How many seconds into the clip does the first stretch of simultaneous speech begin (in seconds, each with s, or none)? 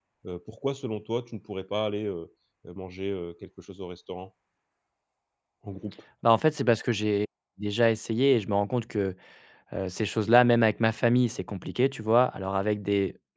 none